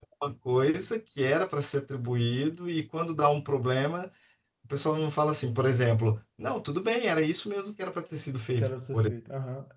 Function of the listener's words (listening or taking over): taking over